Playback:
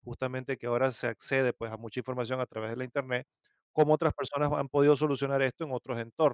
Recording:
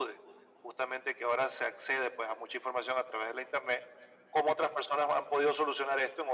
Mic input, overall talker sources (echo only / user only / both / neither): echo only